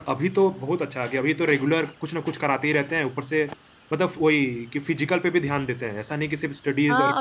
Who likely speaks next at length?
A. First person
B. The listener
B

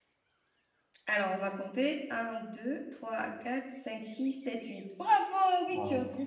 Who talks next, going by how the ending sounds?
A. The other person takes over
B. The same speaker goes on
A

